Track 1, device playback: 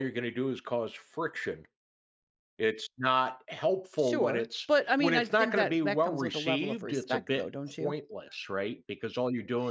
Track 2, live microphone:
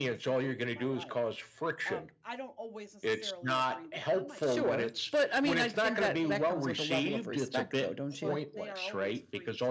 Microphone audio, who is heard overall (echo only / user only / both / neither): both